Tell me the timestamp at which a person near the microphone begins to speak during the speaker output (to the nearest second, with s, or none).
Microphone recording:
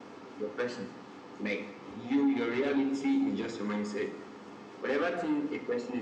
none